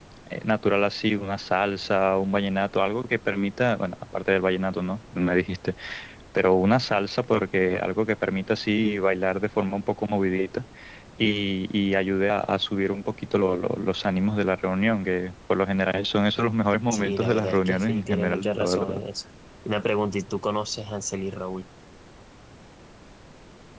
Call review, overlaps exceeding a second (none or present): present